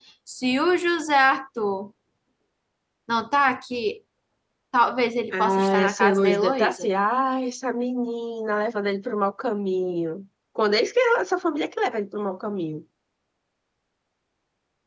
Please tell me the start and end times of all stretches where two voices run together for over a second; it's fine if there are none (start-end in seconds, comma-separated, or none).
5.3-6.9